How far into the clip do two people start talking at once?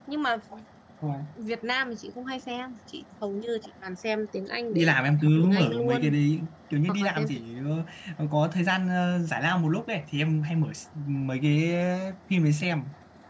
5 s

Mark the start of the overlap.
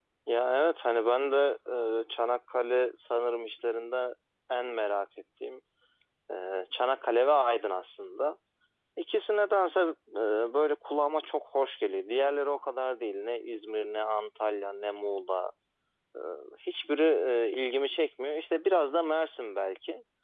none

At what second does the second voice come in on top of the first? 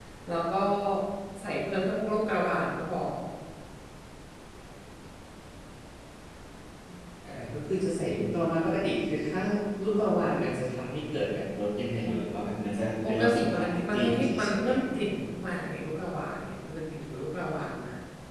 13 s

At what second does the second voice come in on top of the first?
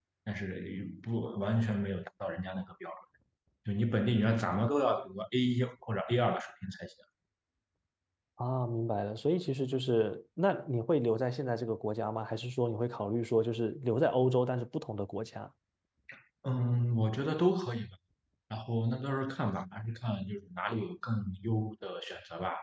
none

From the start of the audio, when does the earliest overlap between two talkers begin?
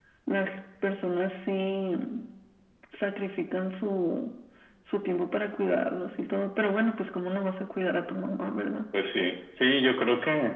none

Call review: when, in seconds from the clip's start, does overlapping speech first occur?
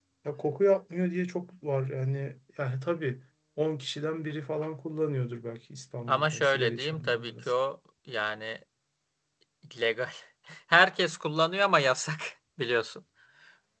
6 s

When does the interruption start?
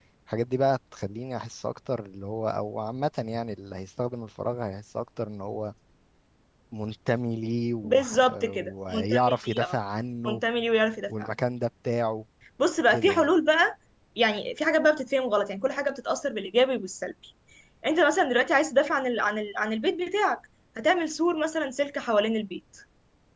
8 s

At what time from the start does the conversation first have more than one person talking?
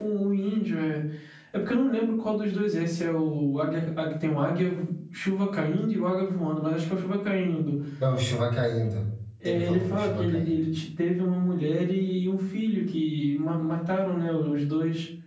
9 s

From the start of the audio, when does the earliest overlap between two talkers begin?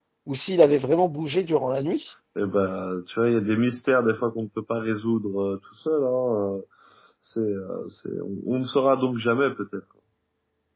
none

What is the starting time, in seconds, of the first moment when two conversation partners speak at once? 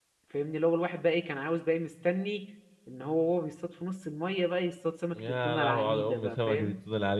5 s

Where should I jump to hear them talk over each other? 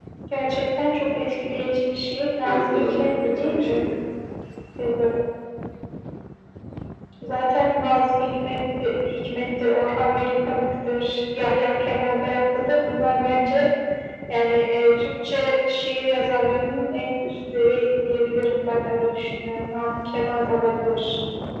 2 s

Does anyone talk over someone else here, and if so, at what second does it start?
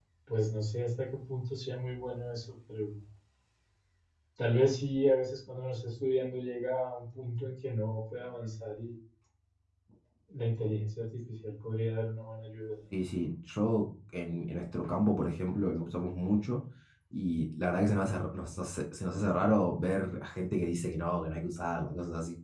none

